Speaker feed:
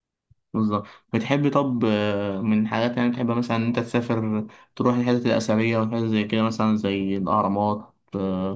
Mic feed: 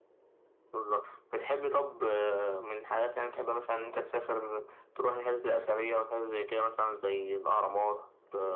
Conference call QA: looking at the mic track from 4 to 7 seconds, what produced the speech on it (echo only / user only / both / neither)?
echo only